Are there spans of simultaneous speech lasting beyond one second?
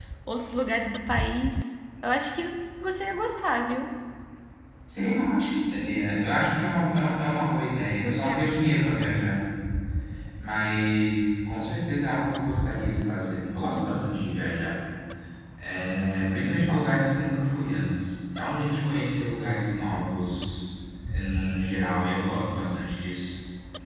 No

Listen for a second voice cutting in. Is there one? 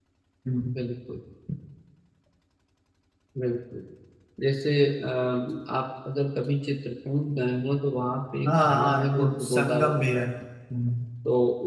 Yes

